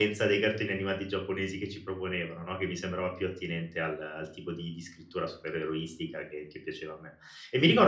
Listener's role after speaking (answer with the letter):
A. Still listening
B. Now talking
B